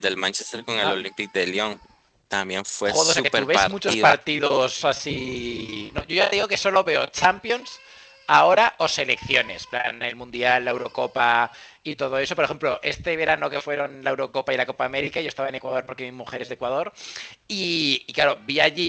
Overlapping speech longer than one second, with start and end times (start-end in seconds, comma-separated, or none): 2.9-4.1